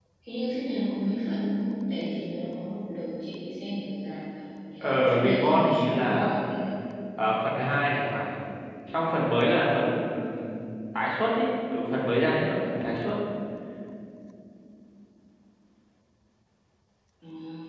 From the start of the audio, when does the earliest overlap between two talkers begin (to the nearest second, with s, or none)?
5 s